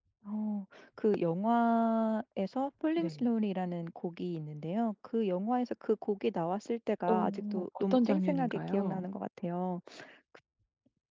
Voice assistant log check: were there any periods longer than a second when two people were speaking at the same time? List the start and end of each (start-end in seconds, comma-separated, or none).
7.1-9.0